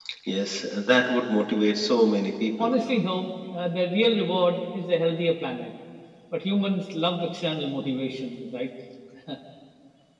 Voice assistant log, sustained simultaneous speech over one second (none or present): none